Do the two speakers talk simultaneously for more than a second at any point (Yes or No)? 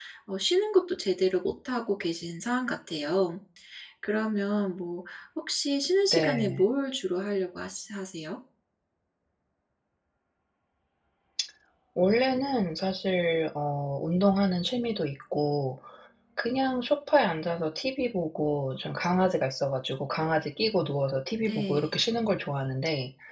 No